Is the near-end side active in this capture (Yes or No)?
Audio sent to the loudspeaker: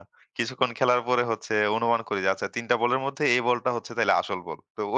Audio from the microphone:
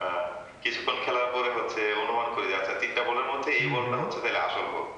Yes